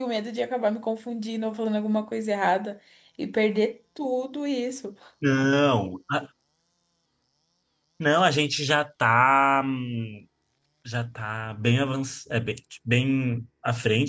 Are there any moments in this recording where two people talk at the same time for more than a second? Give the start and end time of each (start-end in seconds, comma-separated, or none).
none